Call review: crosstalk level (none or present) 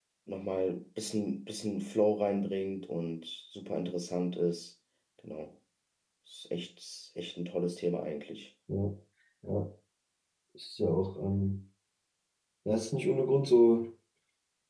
none